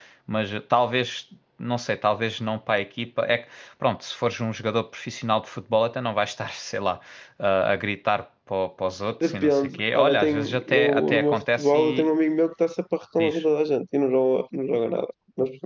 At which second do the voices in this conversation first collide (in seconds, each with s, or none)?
9.2 s